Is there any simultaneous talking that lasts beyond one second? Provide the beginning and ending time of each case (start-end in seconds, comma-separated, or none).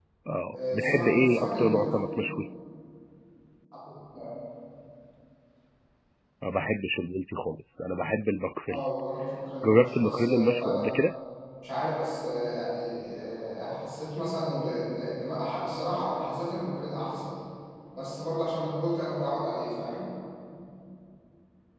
0.5-1.9, 9.6-10.9